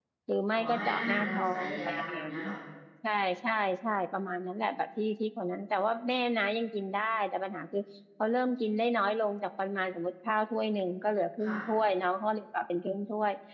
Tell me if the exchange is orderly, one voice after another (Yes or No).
No